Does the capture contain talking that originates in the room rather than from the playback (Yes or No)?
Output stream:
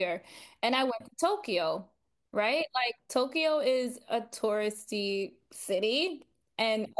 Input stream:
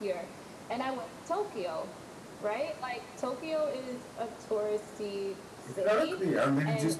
Yes